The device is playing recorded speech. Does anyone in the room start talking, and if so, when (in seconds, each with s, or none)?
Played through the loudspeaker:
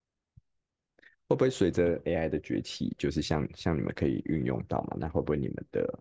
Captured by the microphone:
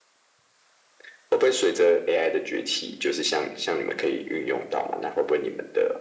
none